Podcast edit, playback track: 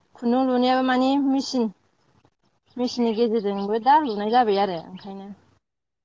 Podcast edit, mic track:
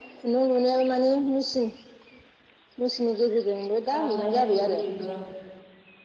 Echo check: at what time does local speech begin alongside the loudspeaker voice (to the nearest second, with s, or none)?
4 s